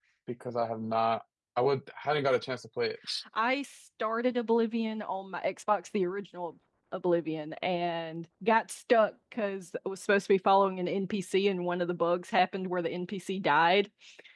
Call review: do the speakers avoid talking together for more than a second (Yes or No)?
Yes